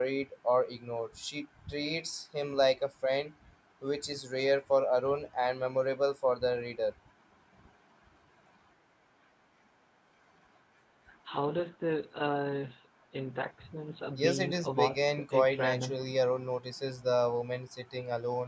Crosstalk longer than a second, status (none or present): present